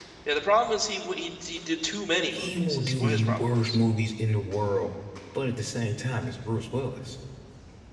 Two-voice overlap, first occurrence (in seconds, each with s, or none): 2.3 s